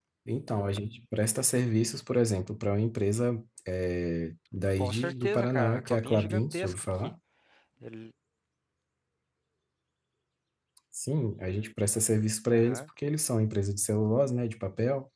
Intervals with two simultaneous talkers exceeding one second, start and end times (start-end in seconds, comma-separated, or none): 4.8-7.1